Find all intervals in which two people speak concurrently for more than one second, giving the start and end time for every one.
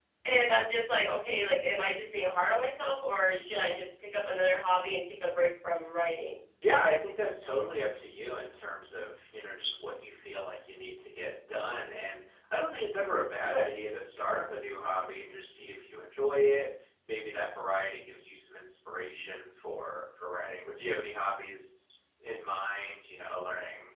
none

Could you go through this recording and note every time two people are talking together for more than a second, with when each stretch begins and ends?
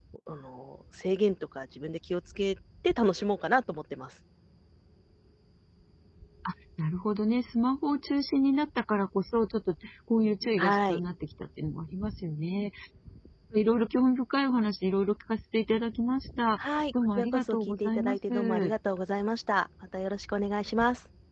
17.2-18.7

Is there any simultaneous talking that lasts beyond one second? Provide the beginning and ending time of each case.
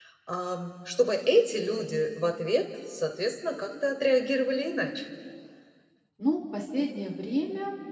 none

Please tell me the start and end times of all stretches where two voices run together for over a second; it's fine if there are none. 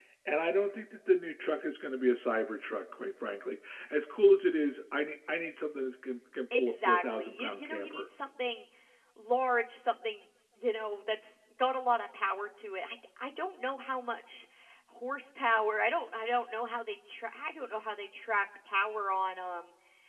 6.6-8.0

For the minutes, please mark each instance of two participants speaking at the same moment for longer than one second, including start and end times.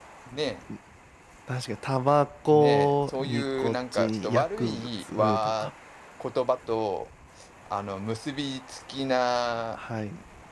2.5-5.7

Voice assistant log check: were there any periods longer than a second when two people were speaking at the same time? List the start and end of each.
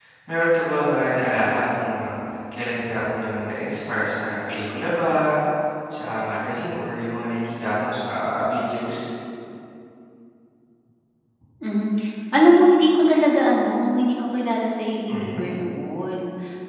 none

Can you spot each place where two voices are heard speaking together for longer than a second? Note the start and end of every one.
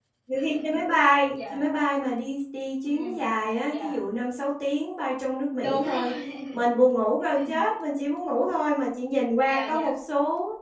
none

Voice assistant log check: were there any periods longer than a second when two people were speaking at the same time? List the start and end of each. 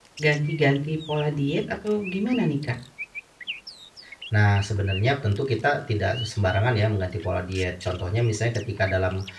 none

